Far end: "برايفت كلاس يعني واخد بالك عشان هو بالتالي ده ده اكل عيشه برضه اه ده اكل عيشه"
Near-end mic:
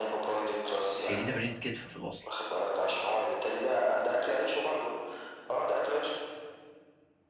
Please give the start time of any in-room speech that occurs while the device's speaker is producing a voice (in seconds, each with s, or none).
1.0 s